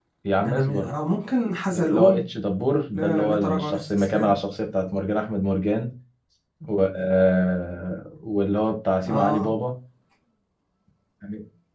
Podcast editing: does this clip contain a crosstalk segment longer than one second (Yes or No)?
Yes